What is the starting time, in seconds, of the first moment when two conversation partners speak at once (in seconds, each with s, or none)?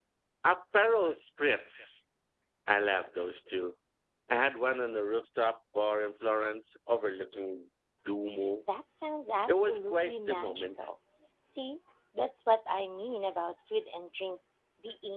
9.5 s